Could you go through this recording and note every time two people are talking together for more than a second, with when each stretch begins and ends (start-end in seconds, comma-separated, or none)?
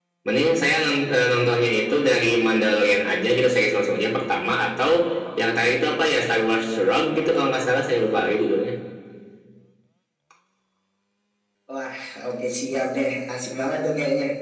none